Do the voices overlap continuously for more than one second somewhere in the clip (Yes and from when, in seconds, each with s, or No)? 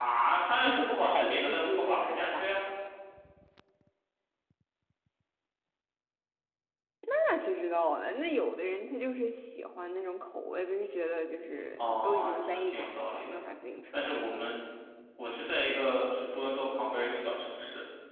Yes, from 0.6 s